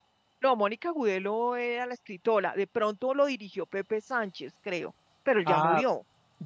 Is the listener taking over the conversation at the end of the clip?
Yes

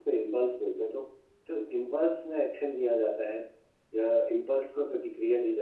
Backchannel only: Yes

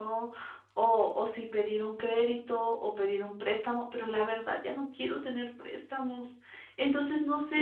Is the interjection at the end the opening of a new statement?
Yes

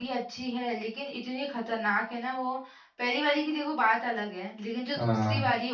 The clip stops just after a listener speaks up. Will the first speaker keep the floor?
Yes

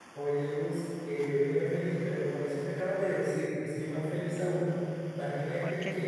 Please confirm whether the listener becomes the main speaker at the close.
No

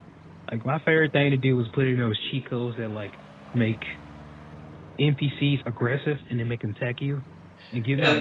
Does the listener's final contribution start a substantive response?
No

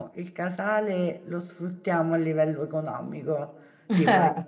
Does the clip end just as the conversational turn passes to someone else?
No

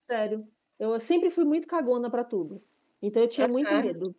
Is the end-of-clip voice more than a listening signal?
No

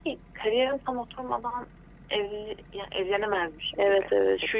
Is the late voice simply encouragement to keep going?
No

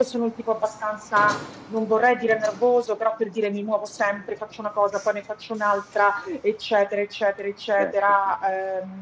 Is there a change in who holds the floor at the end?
No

